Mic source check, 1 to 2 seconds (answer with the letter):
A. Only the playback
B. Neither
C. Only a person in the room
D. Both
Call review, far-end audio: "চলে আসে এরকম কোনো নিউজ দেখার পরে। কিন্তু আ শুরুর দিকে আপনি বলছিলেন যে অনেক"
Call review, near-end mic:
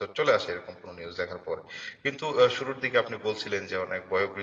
A